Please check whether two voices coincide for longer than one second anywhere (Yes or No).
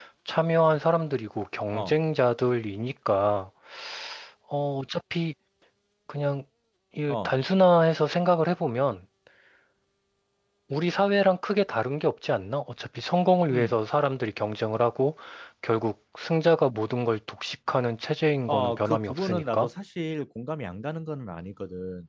Yes